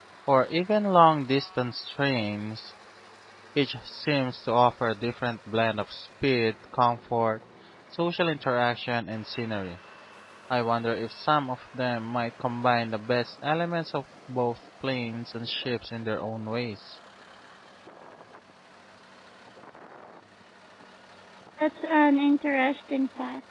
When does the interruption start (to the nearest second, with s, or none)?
none